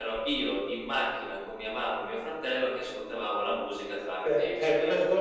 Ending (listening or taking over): taking over